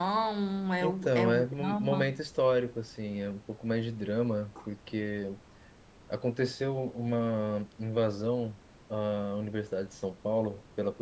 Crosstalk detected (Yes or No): Yes